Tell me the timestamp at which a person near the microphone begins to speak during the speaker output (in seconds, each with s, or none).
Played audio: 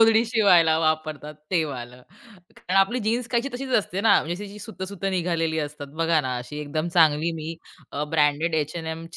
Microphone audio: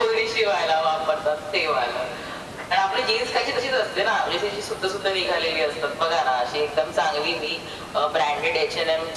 none